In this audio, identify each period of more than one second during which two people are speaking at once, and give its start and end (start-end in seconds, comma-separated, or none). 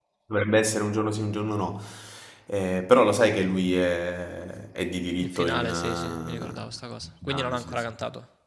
5.2-8.0